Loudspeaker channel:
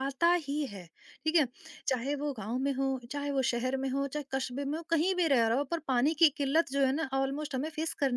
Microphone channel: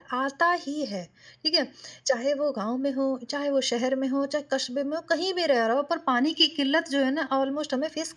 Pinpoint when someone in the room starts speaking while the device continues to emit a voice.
none

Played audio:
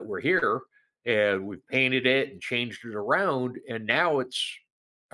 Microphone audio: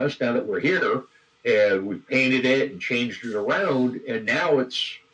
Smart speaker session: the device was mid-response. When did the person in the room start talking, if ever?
none

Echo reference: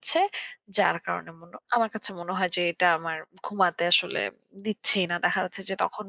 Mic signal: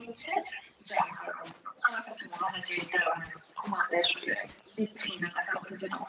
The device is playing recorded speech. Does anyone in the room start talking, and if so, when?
none

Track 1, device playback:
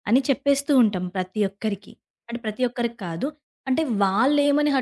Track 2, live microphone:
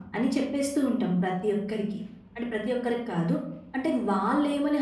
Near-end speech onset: none

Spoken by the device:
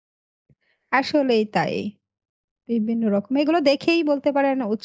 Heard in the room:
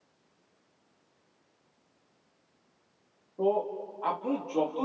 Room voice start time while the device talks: 3.4 s

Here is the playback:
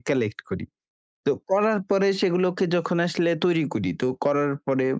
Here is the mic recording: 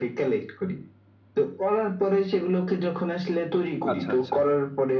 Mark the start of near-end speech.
3.9 s

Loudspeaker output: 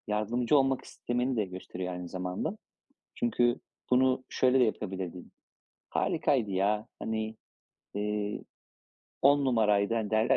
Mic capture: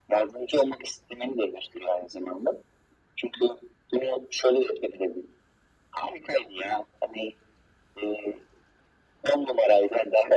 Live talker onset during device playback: none

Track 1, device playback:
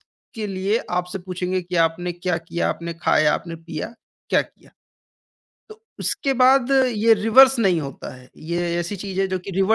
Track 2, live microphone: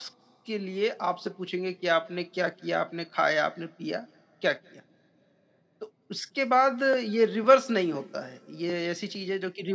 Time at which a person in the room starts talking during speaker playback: none

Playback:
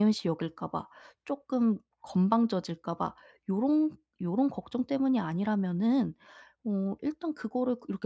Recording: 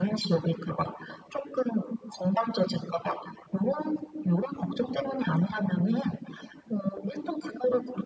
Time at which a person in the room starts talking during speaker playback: none

